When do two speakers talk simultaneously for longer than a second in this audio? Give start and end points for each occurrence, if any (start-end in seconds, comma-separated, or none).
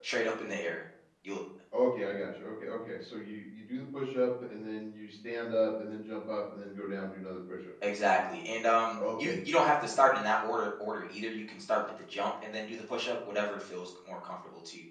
none